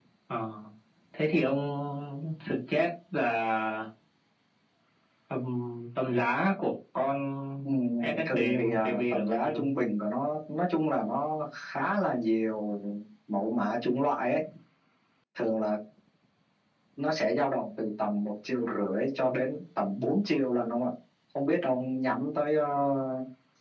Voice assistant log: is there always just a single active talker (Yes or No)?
No